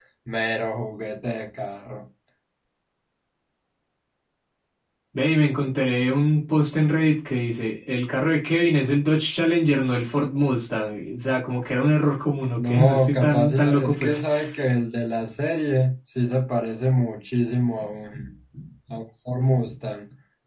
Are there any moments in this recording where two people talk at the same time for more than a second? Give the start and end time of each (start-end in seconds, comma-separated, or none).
12.6-14.2